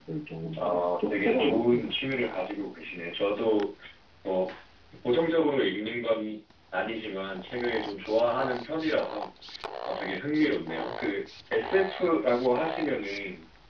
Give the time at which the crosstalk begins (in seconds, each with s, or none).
0.6 s